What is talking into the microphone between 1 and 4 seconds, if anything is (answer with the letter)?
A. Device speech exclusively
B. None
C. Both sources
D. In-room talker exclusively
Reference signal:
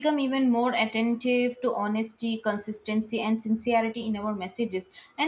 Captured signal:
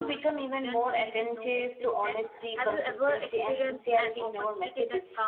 C